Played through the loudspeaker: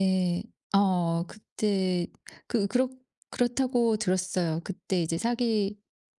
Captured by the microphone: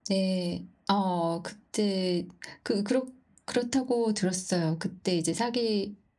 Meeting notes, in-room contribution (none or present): none